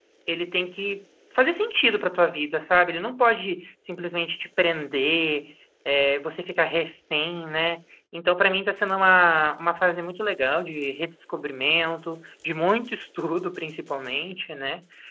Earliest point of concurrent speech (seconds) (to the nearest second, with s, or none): none